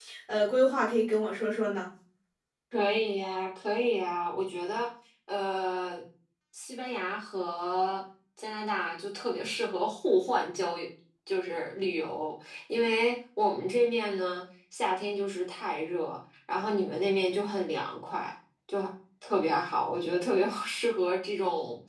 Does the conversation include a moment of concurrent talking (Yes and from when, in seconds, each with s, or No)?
No